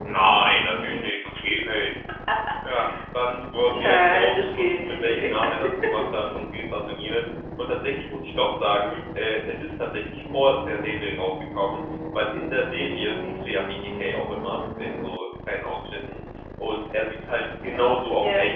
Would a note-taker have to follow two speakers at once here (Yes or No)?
Yes